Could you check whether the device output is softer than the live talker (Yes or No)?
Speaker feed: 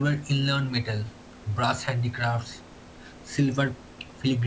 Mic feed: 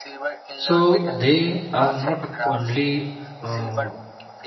Yes